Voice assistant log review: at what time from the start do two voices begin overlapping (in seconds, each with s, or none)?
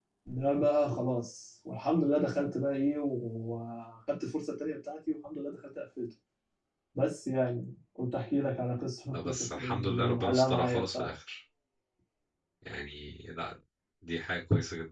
9.1 s